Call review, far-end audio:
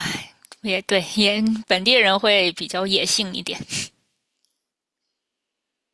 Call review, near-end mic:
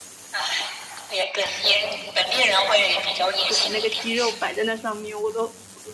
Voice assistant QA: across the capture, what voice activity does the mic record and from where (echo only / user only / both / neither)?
both